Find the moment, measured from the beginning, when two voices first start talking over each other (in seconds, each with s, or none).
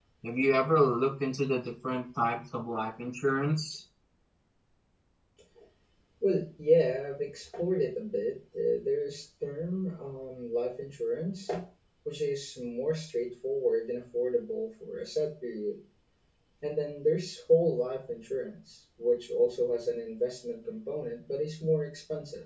none